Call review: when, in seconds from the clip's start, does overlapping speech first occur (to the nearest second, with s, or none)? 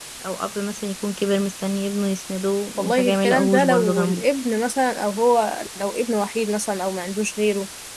3 s